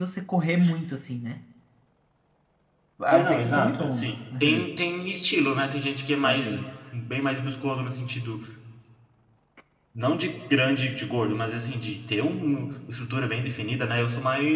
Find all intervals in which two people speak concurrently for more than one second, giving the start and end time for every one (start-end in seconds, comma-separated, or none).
3.1-4.6